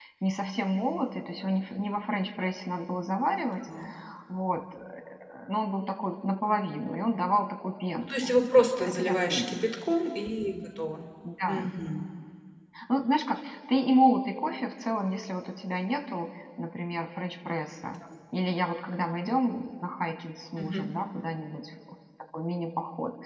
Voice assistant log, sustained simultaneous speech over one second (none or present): present